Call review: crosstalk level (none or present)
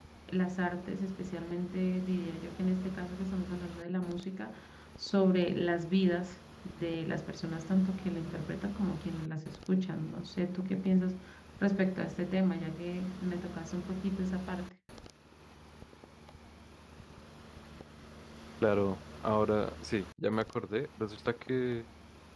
none